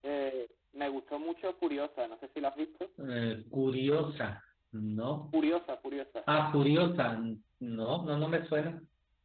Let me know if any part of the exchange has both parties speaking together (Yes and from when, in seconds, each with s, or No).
No